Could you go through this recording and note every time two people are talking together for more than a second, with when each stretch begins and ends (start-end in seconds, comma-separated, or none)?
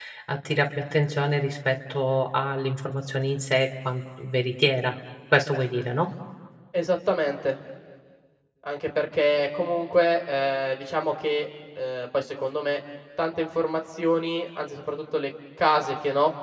none